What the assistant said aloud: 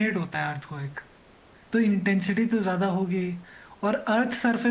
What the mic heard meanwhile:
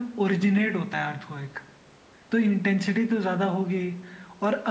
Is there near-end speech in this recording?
No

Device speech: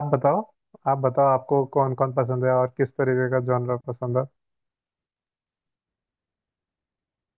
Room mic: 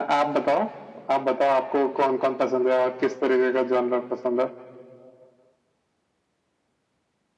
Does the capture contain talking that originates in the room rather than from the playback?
No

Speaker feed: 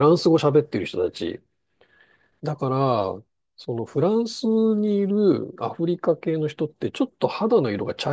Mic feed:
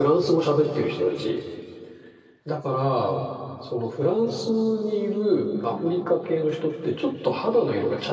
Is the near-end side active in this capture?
No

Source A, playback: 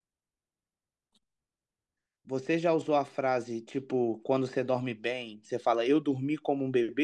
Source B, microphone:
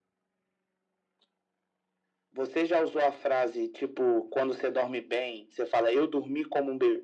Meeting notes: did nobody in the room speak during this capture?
Yes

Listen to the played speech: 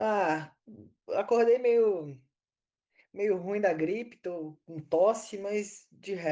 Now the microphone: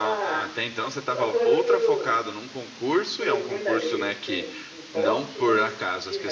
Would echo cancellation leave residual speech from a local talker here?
Yes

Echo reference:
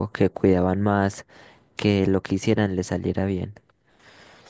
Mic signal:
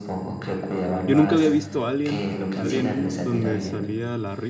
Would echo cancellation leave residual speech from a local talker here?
Yes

